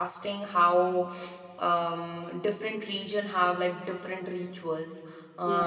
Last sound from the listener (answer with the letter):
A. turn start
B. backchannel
B